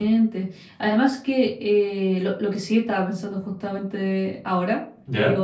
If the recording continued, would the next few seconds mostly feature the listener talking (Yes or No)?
No